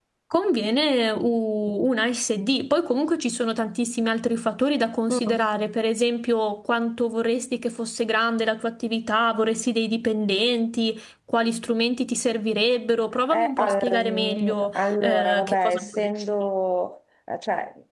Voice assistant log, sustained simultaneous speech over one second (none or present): present